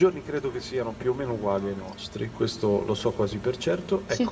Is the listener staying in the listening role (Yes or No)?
Yes